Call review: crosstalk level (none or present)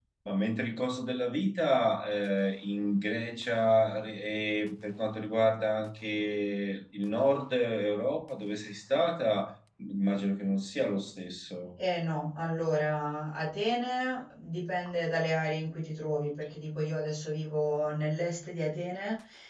none